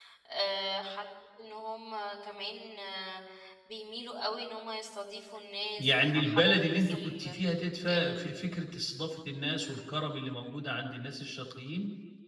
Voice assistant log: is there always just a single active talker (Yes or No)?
No